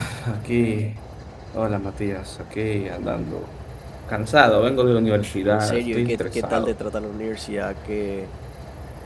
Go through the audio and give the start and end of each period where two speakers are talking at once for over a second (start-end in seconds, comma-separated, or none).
5.5-6.7